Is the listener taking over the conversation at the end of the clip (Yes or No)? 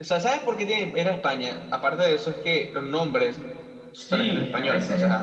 Yes